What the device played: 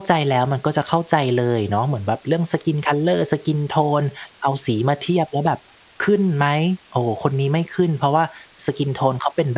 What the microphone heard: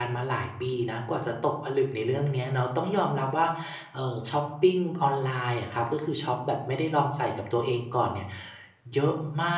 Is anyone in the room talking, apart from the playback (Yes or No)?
Yes